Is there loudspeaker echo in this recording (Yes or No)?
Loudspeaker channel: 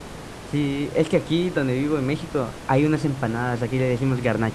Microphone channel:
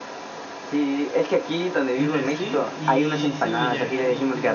Yes